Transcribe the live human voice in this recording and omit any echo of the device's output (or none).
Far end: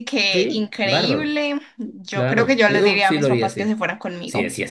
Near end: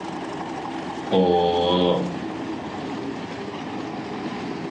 O